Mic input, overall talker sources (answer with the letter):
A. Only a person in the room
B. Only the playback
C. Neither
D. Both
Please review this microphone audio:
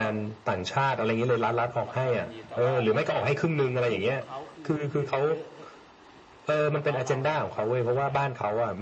D